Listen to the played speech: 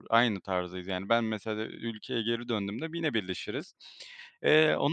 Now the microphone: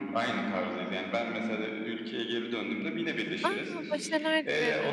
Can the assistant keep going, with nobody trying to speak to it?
No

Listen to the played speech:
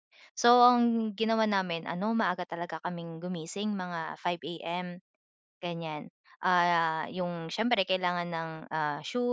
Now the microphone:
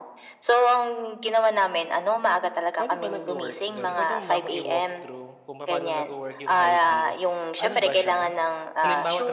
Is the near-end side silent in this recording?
No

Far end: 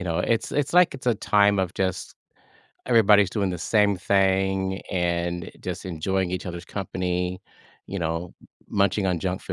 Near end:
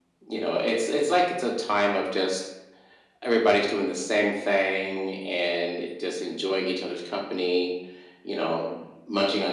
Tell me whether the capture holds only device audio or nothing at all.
Yes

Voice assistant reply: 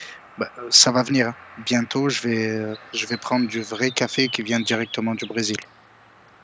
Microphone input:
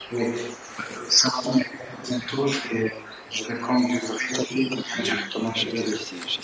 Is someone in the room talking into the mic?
Yes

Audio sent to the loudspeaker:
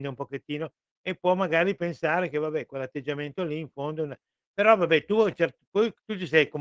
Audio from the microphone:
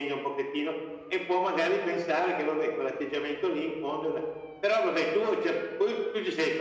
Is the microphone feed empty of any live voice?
Yes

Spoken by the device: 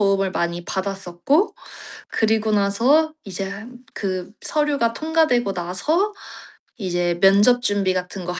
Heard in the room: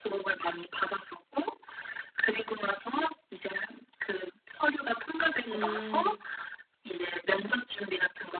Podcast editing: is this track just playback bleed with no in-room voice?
No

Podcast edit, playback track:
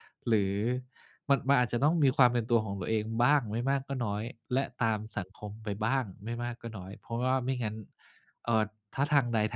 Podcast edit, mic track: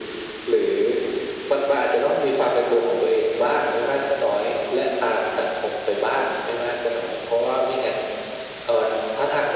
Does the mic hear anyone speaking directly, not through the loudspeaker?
No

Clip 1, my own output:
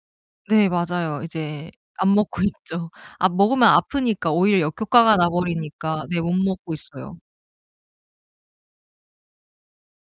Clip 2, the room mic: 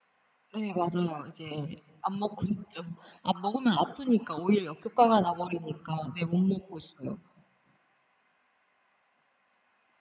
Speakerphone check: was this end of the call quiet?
Yes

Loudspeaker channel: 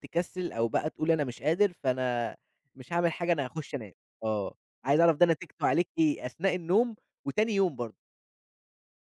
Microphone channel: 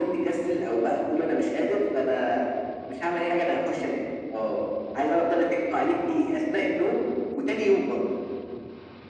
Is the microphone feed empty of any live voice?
Yes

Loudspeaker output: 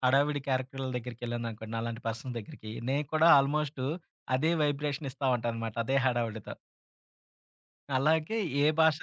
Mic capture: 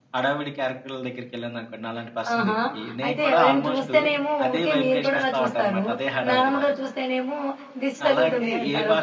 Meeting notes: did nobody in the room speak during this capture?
No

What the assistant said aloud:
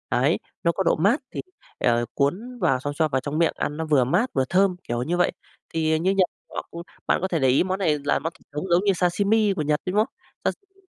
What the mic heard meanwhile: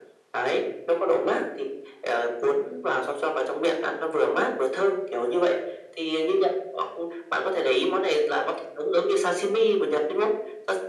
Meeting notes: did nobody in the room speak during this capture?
Yes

